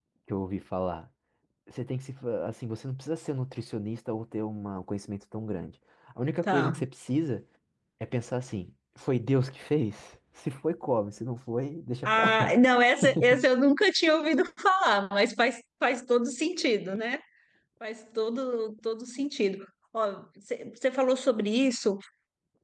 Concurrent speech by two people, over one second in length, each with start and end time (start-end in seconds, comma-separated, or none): none